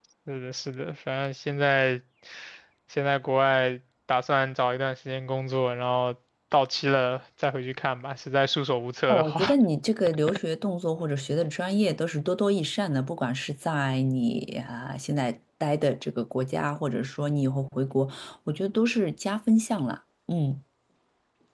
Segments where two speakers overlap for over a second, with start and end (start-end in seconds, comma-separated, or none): none